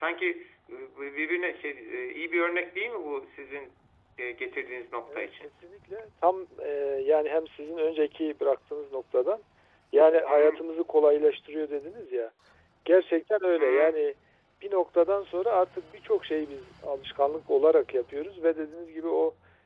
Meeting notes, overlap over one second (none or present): none